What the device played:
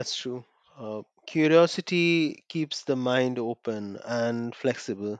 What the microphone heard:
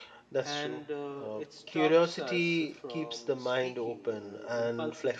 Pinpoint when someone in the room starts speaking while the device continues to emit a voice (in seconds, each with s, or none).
0.4 s